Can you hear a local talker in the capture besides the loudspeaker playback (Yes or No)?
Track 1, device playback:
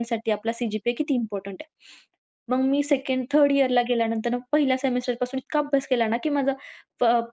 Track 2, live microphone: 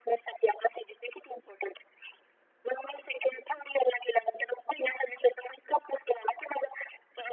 No